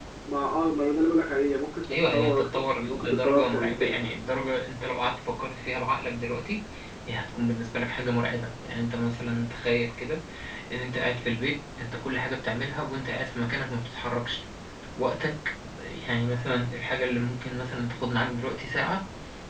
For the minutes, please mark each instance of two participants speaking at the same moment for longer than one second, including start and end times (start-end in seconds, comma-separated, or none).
2.1-4.1